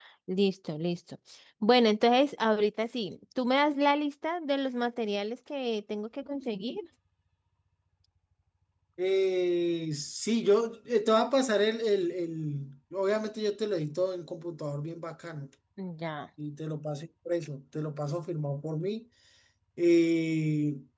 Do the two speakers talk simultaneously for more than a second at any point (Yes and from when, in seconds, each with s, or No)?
No